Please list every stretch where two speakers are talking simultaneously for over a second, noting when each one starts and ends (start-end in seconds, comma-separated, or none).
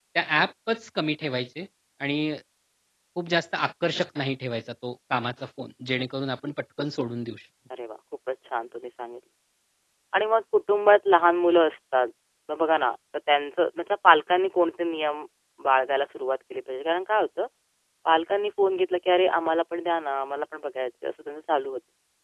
none